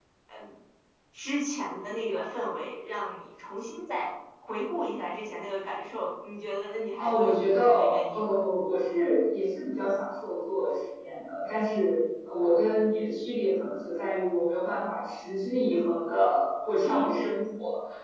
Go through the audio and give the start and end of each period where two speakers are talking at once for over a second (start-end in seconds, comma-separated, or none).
7.0-8.4